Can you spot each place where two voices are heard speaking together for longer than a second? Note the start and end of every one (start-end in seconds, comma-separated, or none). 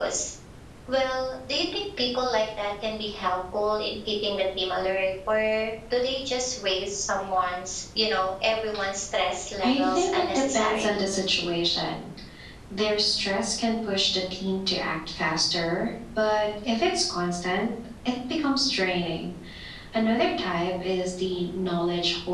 9.6-11.0